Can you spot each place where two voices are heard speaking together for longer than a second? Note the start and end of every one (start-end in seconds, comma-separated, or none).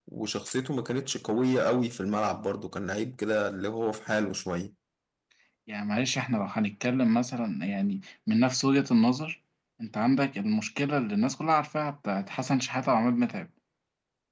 none